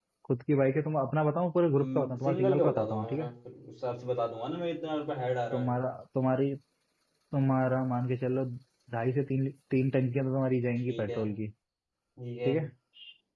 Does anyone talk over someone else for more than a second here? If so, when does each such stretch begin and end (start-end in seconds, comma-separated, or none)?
1.7-3.3